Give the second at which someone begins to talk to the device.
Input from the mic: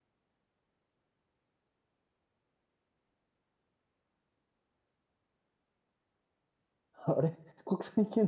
7.1 s

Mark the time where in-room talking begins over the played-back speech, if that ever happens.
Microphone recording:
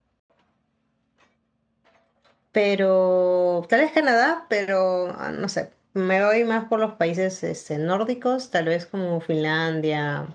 2.5 s

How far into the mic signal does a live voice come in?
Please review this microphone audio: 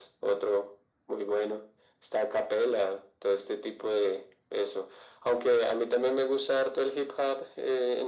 none

